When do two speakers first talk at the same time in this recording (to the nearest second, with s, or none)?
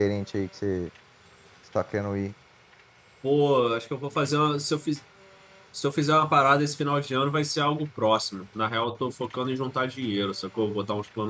none